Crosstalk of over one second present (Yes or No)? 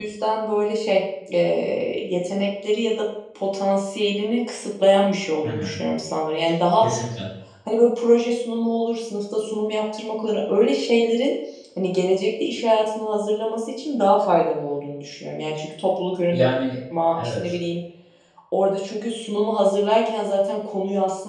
No